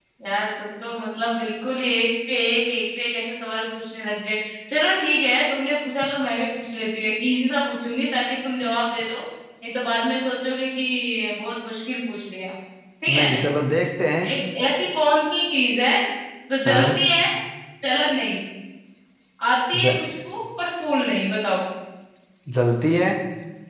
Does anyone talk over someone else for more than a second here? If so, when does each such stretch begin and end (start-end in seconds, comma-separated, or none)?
none